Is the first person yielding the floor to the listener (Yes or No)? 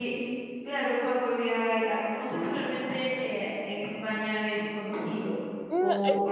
Yes